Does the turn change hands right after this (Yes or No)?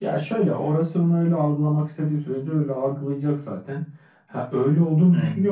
No